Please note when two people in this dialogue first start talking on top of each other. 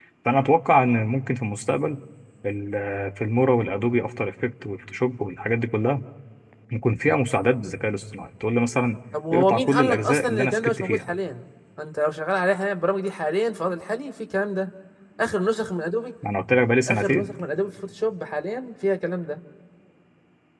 9.3 s

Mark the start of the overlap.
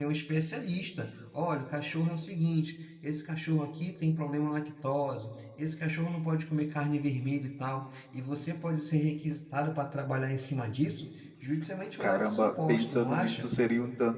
12.0 s

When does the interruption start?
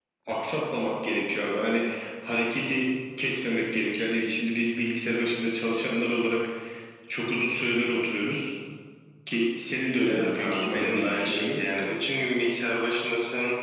10.1 s

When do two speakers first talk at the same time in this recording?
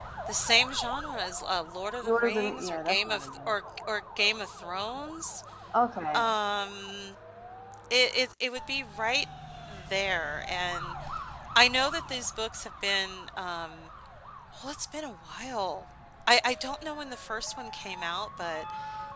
2.0 s

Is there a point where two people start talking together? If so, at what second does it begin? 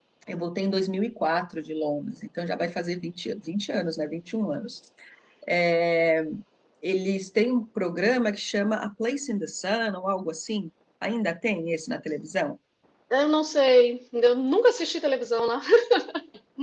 none

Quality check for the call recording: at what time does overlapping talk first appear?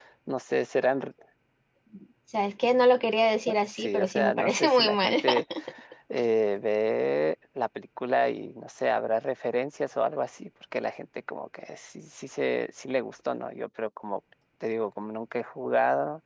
3.7 s

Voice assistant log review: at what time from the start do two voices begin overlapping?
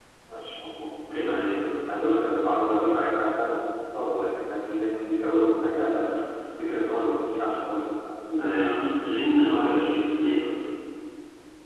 none

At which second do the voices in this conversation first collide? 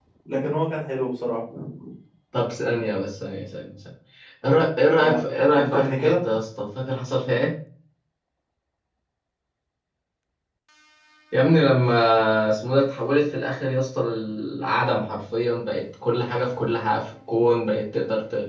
5.0 s

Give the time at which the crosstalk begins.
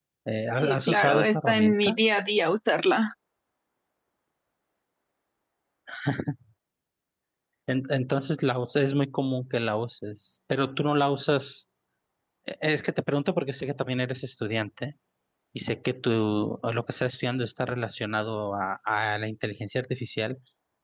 0.6 s

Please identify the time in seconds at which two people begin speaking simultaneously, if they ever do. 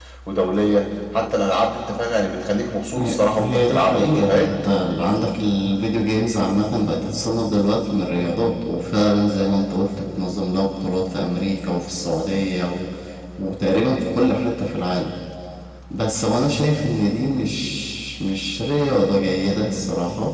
3.0 s

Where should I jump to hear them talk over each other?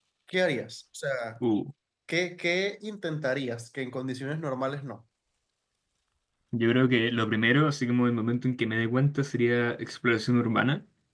none

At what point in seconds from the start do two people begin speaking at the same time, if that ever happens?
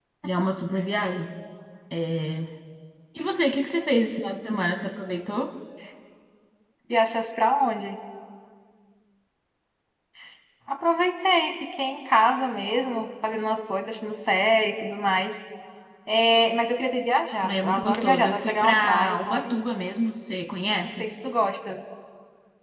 17.4 s

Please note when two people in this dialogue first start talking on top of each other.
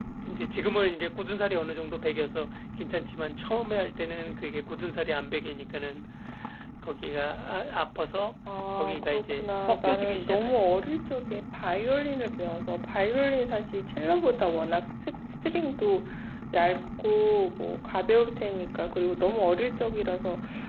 8.8 s

